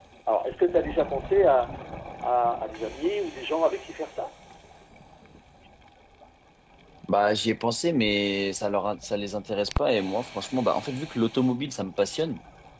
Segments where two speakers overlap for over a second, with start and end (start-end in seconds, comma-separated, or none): none